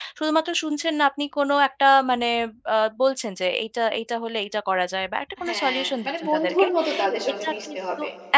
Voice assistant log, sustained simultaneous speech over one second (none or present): present